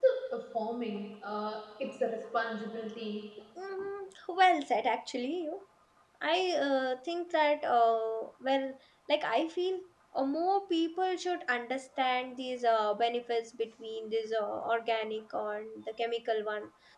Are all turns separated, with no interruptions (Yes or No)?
Yes